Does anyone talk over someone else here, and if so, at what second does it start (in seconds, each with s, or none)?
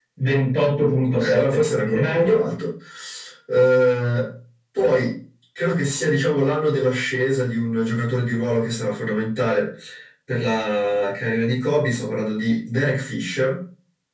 1.1 s